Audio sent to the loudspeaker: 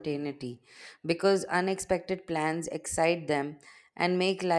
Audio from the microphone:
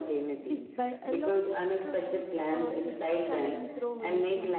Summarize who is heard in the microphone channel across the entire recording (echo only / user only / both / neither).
both